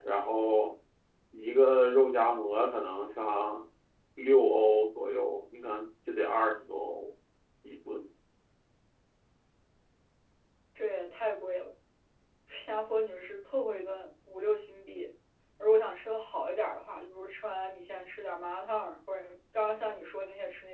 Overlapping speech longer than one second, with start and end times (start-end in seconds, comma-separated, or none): none